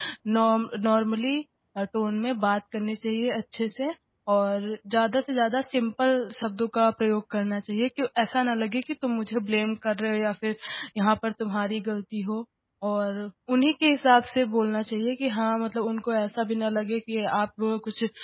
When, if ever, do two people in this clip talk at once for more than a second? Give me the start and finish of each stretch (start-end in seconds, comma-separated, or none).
none